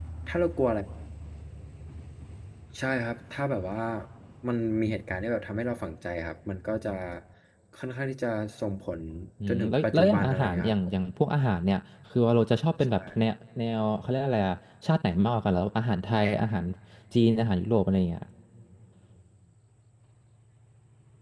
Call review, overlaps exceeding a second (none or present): present